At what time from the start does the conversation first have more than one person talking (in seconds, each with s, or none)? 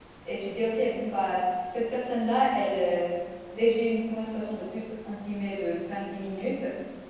none